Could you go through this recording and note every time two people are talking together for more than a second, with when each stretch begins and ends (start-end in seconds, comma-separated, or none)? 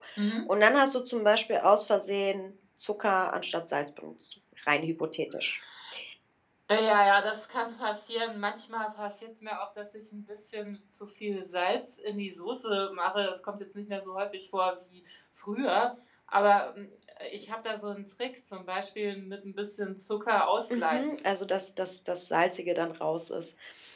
none